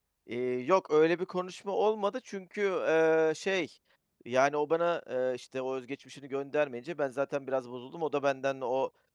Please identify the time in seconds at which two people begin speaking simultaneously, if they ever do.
none

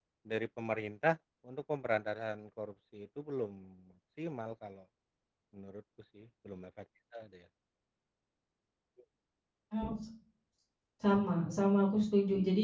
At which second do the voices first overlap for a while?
none

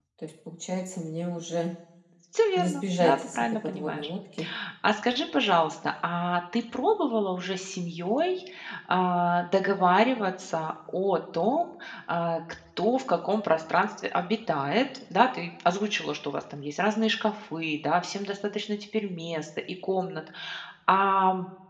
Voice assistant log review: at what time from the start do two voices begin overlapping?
3 s

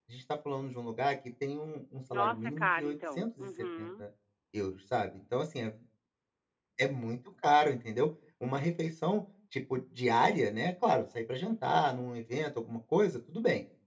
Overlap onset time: 2 s

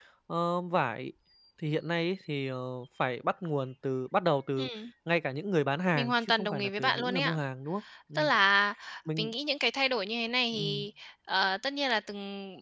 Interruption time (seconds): 6 s

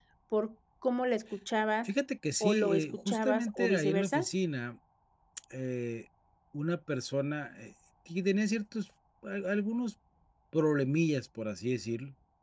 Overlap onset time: 2 s

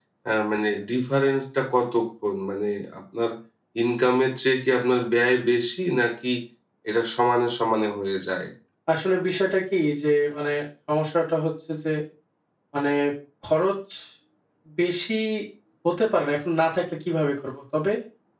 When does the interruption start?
none

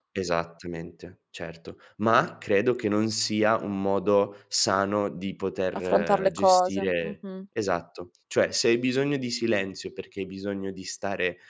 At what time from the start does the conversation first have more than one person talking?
6 s

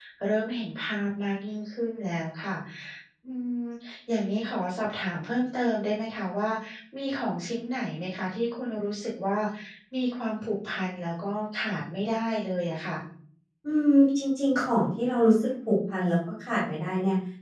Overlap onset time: none

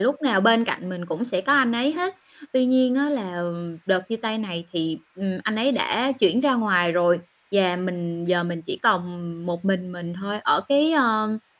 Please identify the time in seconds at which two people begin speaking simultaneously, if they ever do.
none

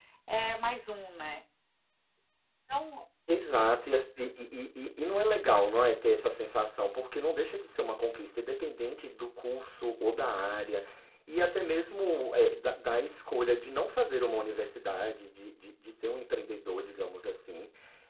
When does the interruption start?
none

